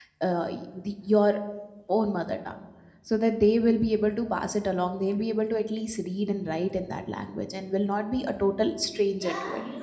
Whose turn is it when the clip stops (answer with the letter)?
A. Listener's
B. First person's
A